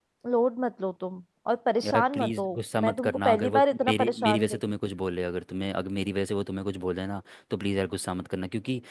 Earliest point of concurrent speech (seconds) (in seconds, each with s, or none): 1.8 s